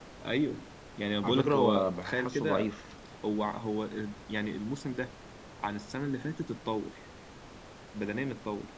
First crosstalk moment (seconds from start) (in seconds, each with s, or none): 1.2 s